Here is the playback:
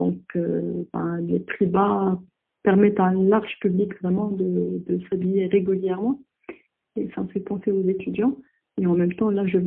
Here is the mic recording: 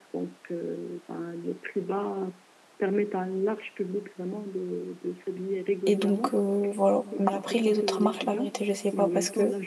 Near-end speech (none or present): present